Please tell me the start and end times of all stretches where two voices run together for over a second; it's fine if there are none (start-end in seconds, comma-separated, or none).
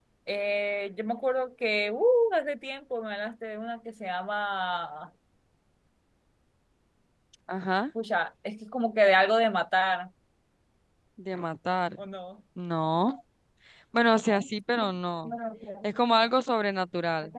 none